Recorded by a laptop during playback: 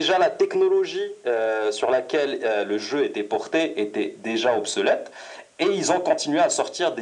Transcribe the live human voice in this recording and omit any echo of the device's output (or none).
none